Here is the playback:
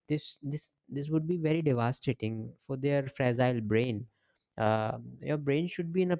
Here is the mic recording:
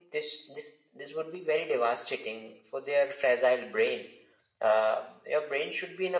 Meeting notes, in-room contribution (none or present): none